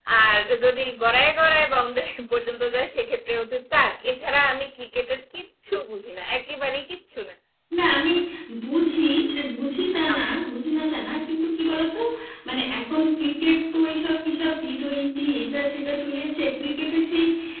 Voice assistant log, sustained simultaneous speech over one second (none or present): none